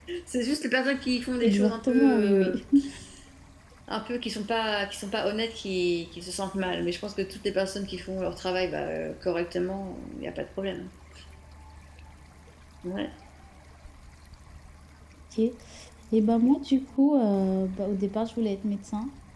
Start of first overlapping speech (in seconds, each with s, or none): 1.4 s